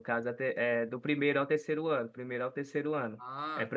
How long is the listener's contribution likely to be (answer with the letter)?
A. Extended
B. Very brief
B